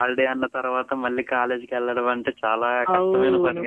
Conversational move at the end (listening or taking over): taking over